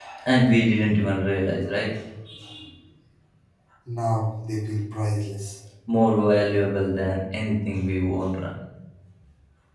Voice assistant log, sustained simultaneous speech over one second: none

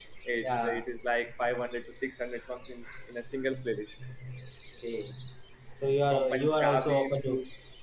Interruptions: present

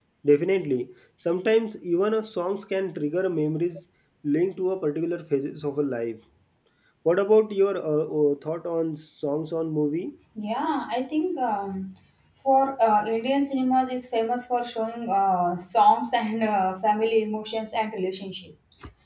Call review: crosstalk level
none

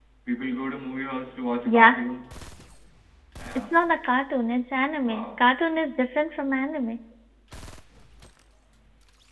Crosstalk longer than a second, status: none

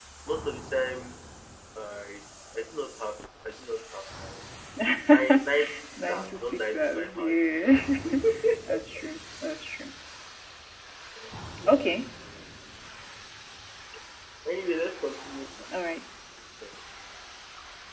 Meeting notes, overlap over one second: present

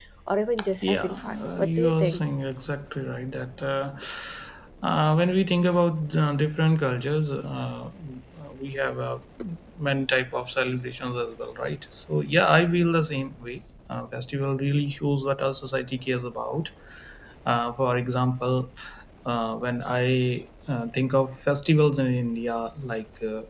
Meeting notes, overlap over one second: present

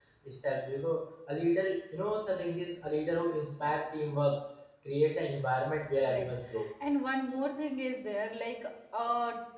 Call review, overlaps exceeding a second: none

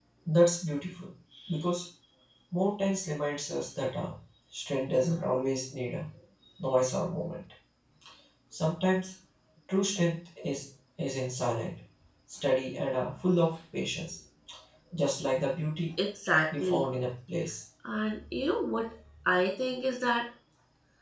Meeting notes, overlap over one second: none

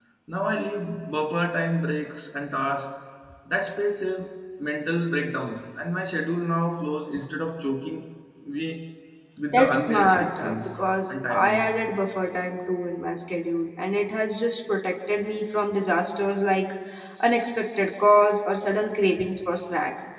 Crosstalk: present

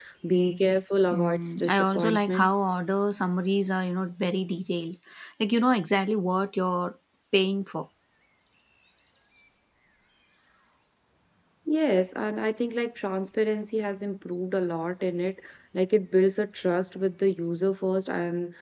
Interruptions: present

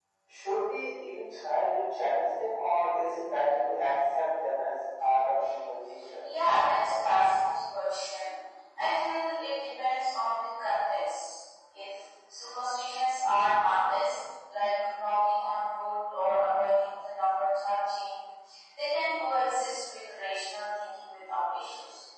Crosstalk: none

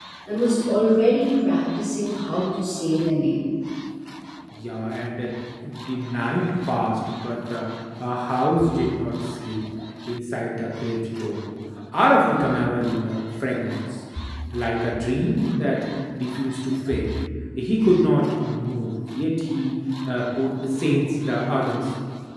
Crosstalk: none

